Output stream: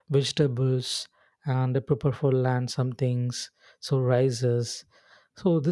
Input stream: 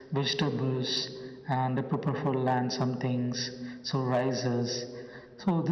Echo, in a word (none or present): present